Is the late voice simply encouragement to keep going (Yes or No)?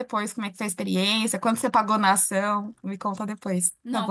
No